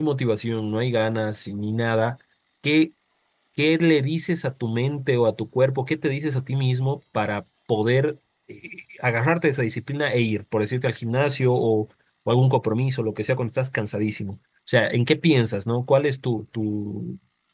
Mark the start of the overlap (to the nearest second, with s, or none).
none